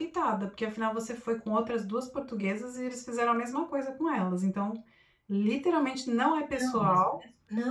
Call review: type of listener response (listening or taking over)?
taking over